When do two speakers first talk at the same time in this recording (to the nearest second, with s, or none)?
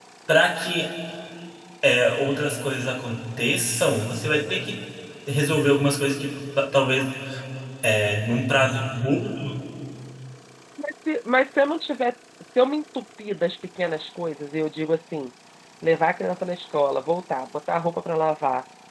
none